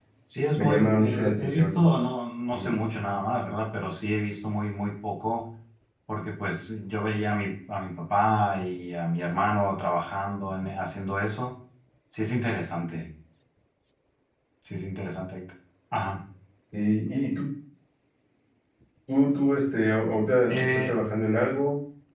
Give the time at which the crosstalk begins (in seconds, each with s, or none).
0.6 s